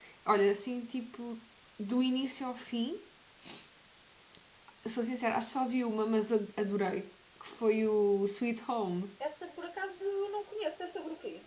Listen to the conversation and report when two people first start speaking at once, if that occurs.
none

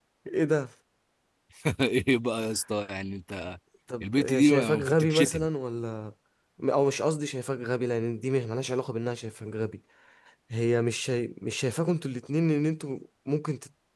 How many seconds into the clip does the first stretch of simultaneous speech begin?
4 s

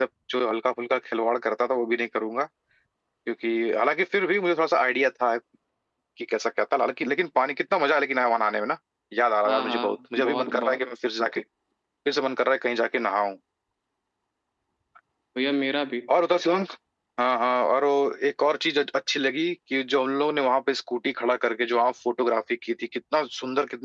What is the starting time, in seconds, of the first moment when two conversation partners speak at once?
9 s

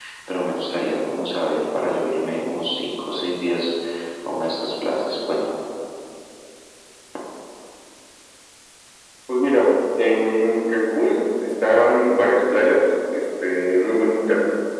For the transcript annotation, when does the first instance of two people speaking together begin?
none

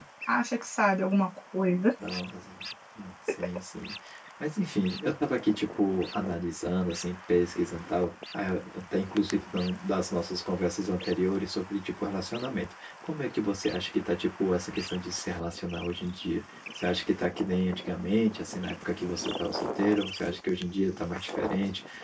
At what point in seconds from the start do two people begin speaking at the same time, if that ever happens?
none

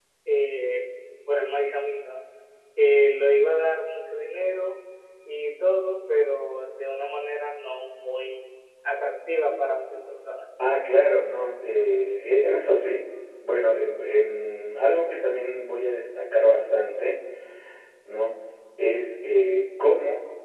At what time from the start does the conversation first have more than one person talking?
none

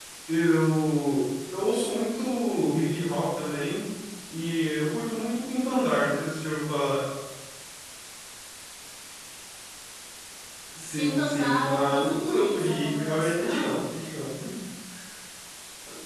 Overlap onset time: 11 s

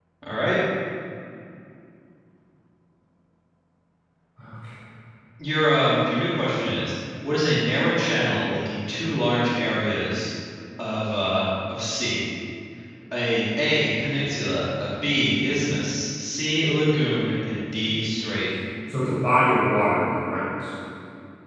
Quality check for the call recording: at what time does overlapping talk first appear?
none

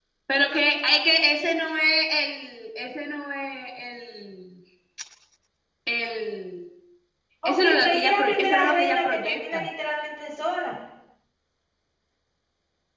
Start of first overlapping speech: 7 s

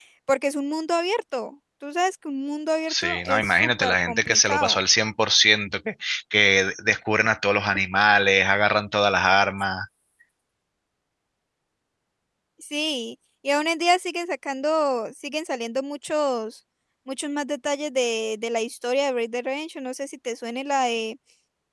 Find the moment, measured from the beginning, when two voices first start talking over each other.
3 s

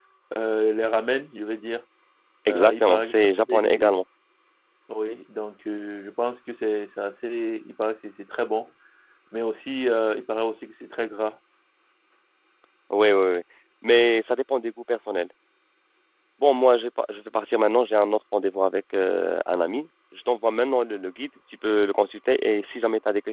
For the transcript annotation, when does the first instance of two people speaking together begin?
3 s

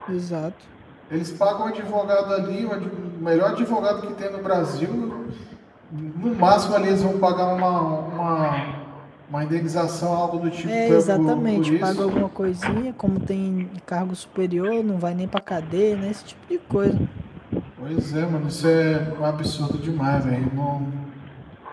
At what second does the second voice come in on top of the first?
11 s

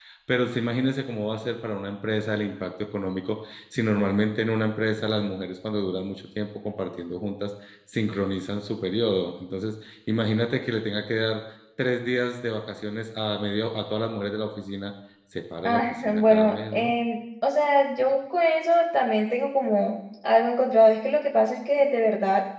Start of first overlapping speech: 16 s

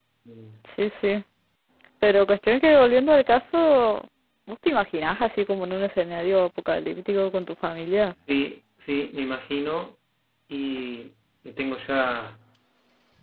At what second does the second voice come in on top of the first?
none

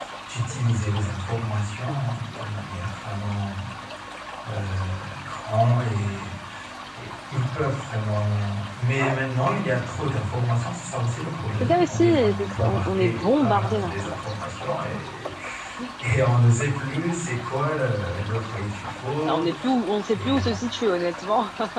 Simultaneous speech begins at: 12 s

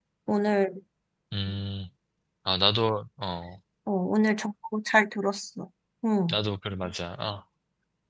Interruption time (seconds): none

